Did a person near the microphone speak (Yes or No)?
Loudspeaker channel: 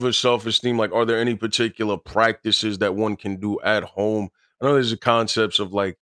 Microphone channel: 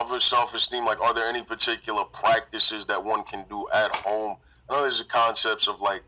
No